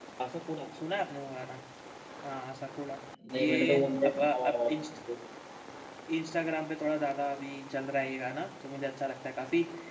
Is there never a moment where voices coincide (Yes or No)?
No